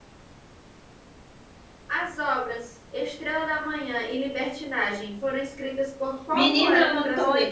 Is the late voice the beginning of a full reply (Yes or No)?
Yes